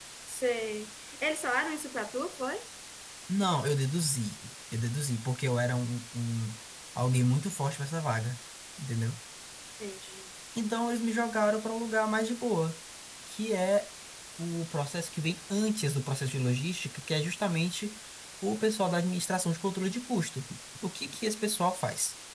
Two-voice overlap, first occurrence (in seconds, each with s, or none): none